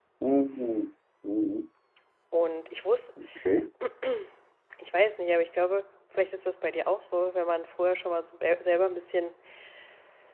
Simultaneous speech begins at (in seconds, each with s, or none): none